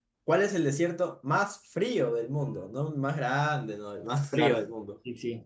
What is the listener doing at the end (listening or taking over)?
taking over